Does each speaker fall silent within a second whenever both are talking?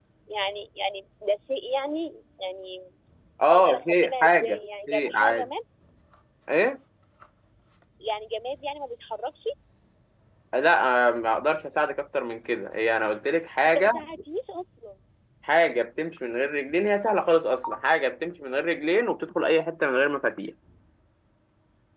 No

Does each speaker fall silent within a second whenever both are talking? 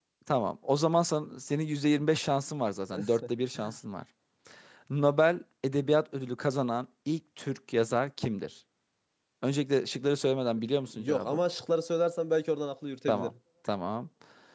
Yes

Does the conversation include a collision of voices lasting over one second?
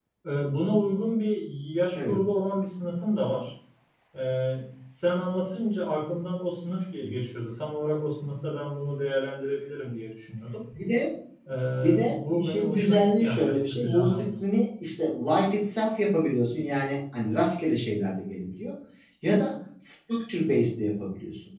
Yes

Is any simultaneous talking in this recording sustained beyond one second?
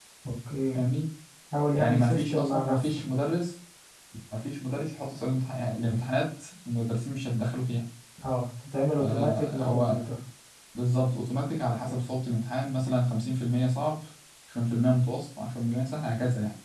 Yes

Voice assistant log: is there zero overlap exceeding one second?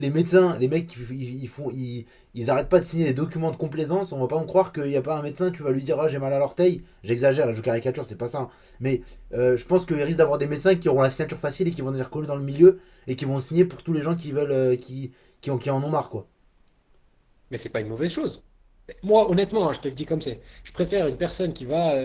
Yes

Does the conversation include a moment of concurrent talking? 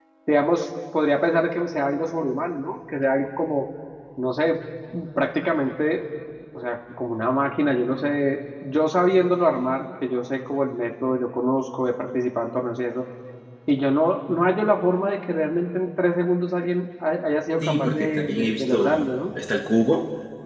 Yes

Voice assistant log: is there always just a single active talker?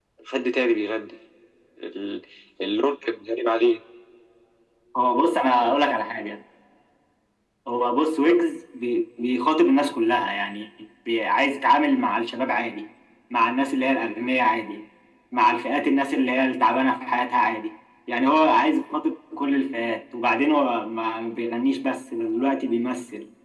Yes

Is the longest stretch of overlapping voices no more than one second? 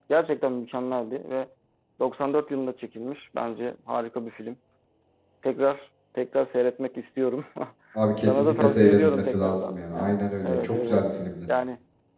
No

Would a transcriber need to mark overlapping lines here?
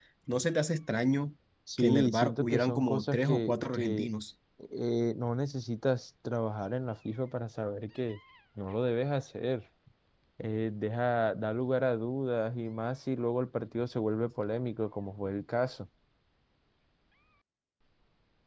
Yes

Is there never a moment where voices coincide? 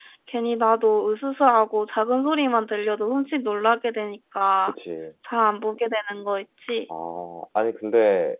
Yes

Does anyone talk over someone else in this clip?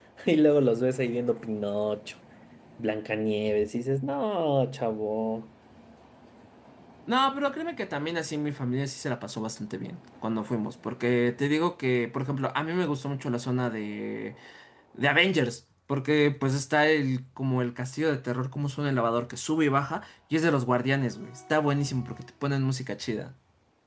No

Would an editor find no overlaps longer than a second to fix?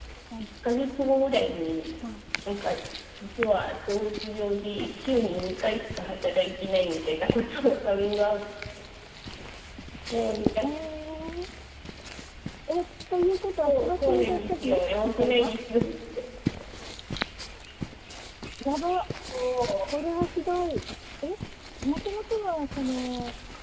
No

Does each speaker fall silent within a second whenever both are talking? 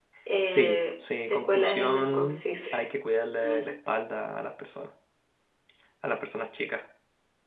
No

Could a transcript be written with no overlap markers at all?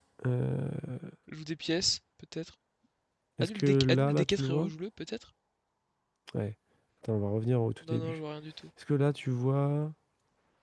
No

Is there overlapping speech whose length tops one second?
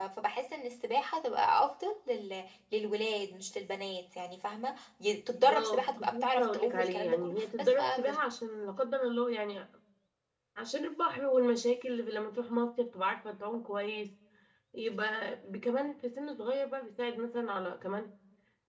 Yes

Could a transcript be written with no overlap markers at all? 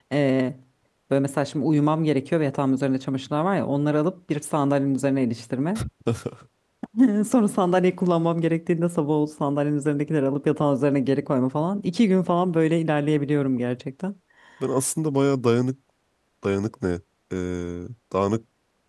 Yes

